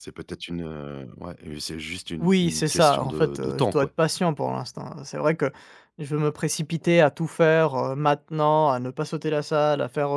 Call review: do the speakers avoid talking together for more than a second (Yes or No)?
No